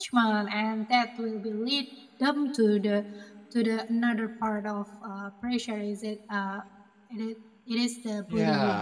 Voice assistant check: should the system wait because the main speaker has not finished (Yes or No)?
No